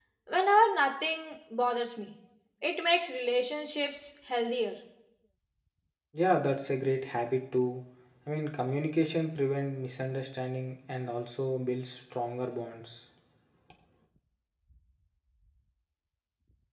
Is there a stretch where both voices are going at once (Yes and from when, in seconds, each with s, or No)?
No